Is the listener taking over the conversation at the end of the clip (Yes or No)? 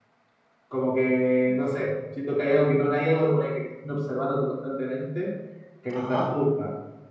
No